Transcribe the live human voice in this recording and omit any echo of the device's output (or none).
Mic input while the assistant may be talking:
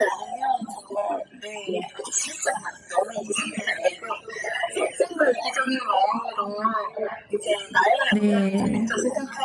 네.